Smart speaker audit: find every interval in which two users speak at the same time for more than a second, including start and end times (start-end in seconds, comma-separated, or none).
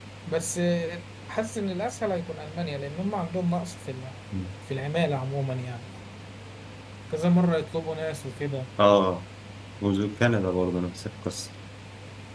none